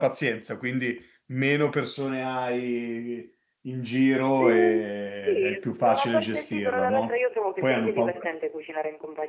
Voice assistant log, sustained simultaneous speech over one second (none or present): present